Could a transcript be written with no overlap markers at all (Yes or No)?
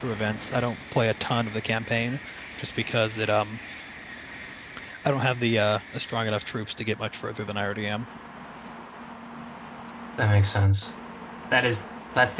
Yes